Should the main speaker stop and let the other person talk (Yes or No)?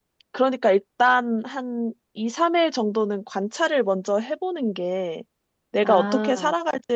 No